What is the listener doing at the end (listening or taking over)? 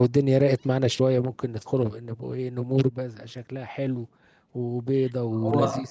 taking over